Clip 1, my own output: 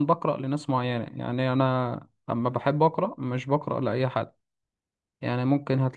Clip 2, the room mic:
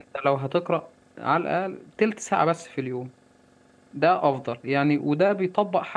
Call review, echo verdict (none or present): none